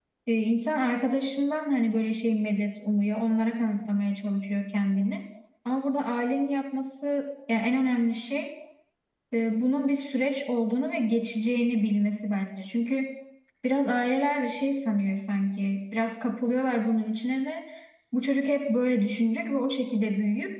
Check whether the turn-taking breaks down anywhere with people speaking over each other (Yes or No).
No